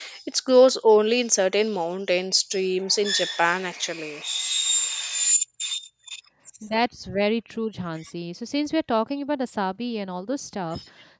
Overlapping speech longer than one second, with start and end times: none

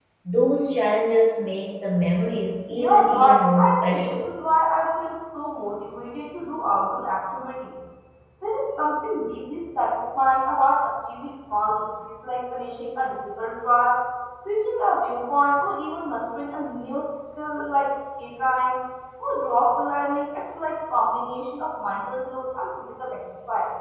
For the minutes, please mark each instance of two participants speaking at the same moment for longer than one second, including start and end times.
2.8-4.3

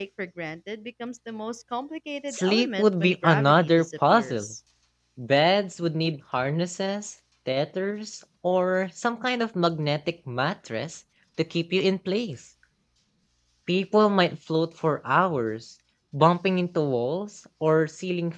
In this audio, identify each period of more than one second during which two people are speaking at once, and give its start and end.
2.3-4.5

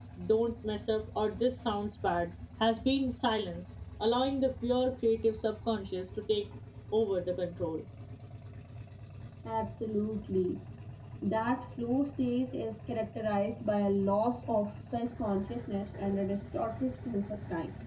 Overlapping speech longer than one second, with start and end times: none

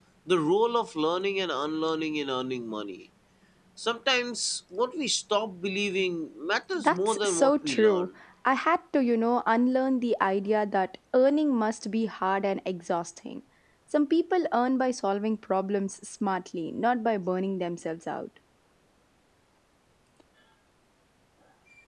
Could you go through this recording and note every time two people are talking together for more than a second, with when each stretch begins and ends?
6.8-8.1

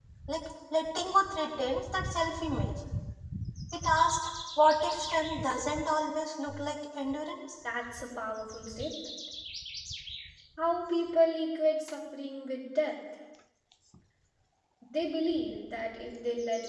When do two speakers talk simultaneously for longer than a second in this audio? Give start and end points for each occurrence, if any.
none

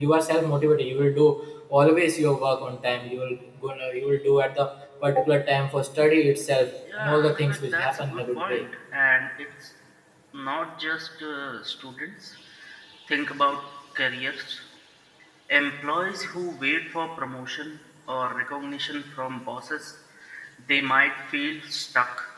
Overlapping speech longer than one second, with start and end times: 7.0-8.6

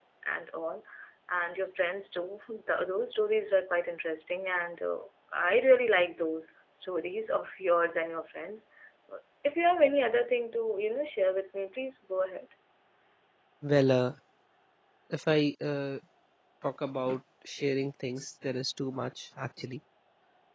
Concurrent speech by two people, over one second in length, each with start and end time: none

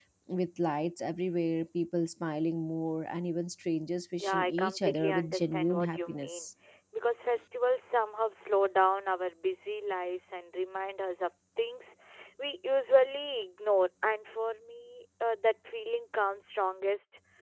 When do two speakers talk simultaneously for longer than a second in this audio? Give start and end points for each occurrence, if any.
4.2-6.5

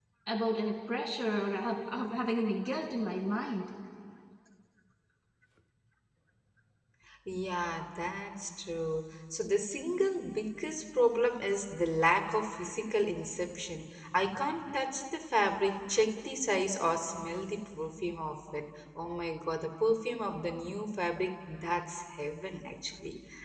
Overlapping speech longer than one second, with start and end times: none

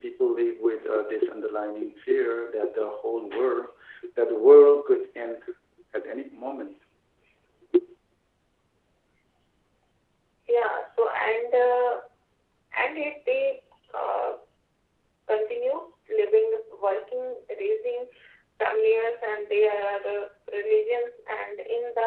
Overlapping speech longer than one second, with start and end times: none

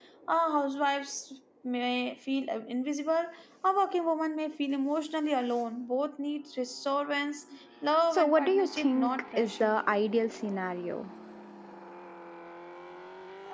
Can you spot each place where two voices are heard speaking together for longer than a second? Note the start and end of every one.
8.1-9.8

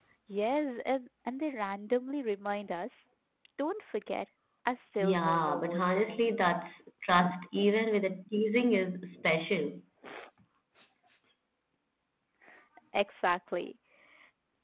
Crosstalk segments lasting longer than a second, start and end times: 5.0-6.6

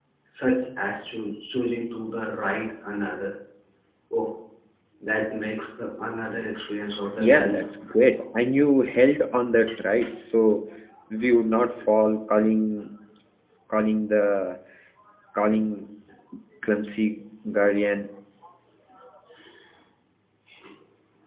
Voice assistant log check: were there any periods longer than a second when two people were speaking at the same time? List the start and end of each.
none

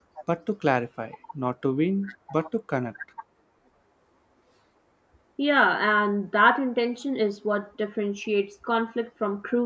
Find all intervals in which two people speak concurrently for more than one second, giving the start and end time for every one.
none

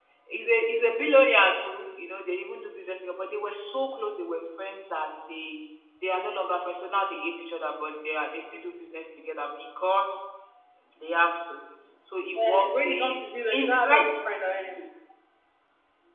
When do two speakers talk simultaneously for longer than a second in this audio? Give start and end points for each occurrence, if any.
12.4-14.0

